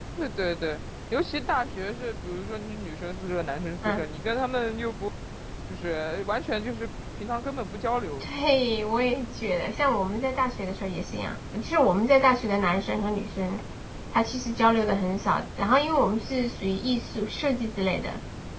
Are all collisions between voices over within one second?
Yes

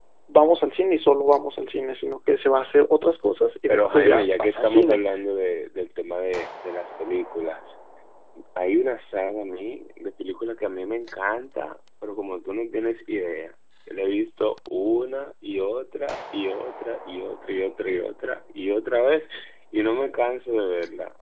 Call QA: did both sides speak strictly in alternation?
No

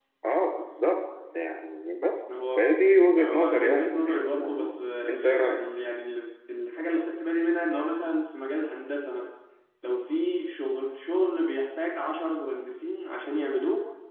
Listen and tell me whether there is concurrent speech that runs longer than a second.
Yes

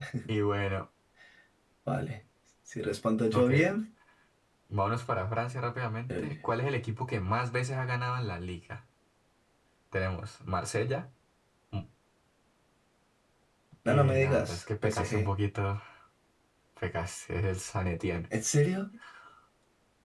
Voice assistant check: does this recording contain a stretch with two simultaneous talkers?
Yes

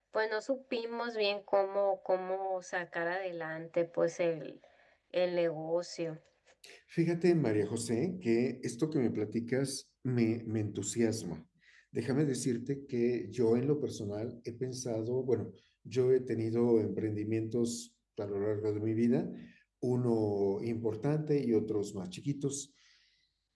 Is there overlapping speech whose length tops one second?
No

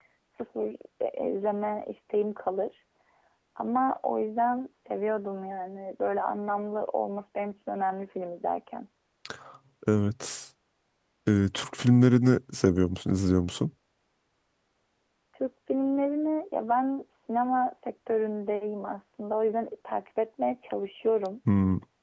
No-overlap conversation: Yes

